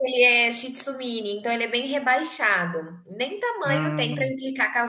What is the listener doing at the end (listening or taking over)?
listening